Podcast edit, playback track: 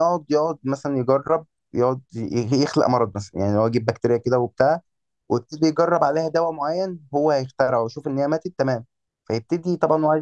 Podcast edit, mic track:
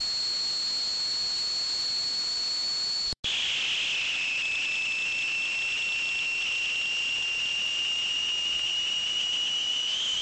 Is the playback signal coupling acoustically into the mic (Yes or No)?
No